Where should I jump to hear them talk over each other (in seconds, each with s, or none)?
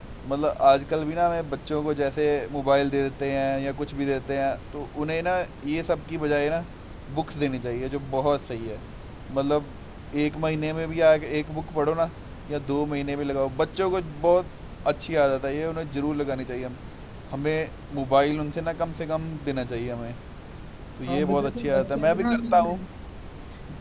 21.1 s